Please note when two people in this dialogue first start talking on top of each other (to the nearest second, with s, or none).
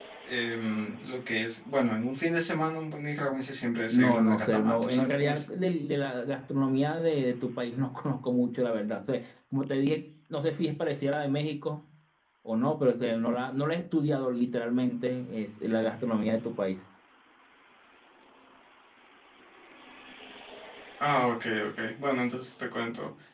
4 s